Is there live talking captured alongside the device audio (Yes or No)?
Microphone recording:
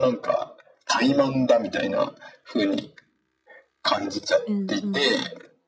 Yes